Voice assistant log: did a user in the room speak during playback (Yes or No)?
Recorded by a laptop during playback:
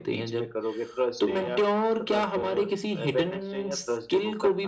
No